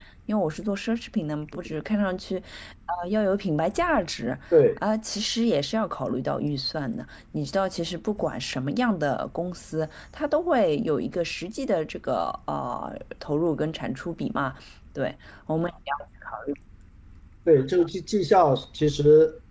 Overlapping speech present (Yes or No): No